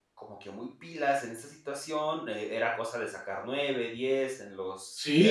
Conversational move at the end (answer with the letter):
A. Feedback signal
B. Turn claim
B